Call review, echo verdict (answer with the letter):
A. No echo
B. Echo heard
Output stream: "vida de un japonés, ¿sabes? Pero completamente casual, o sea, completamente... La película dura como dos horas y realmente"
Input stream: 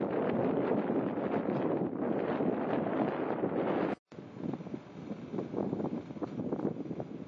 A